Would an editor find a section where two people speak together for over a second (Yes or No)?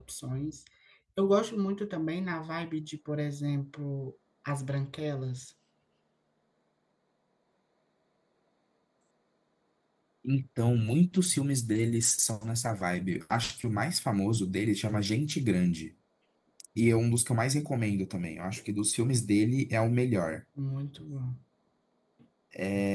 No